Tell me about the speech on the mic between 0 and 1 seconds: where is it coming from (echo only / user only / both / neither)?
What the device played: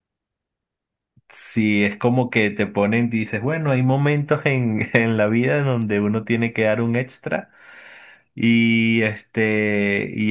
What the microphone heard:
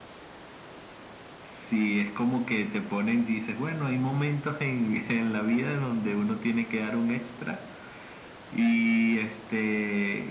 neither